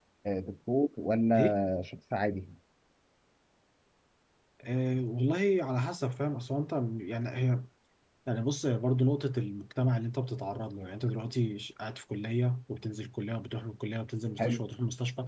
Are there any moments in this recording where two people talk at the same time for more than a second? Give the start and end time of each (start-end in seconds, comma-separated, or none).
none